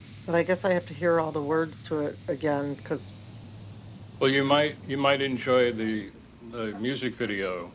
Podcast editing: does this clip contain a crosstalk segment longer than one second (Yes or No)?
No